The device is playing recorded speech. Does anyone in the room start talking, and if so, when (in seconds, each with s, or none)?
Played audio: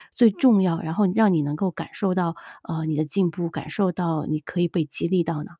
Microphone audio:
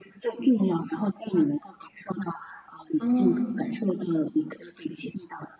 3.0 s